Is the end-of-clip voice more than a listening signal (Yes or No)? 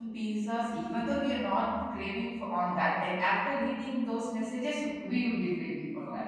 Yes